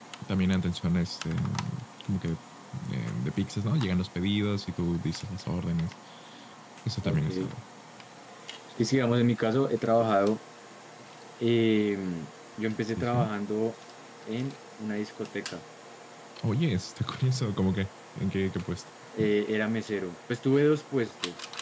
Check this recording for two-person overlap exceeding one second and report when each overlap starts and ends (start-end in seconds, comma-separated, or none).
none